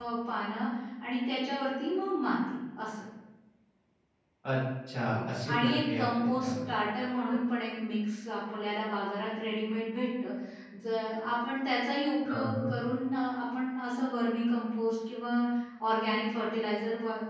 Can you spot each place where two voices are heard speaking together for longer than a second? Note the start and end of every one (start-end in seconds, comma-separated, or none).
5.1-6.5